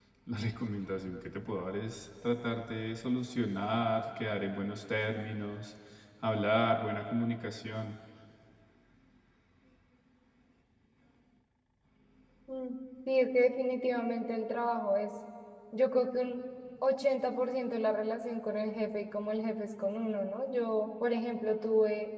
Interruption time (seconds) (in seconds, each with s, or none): none